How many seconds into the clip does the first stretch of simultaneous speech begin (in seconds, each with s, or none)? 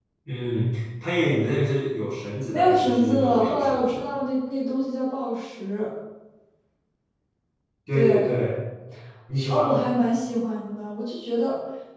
2.5 s